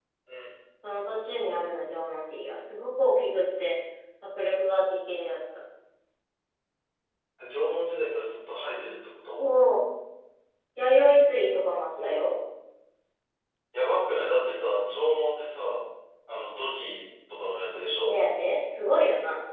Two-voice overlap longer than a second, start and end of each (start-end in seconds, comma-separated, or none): none